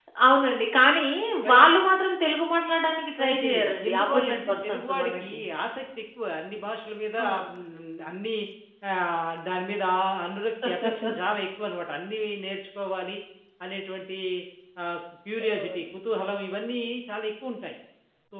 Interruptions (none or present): present